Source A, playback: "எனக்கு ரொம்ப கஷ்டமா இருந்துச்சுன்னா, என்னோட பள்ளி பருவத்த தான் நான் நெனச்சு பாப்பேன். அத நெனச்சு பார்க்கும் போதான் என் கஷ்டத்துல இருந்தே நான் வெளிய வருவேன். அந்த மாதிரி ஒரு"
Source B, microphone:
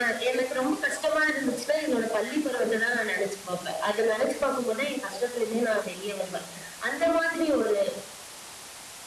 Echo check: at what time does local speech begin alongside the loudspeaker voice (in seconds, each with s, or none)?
none